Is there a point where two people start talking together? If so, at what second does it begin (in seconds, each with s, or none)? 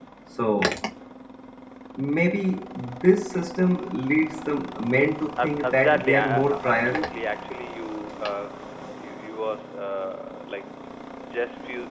5.4 s